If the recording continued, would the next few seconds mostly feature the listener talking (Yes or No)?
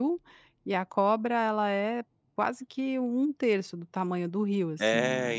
Yes